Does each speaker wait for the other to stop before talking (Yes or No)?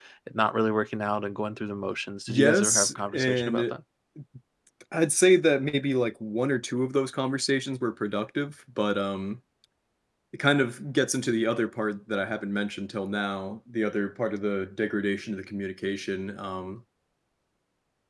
No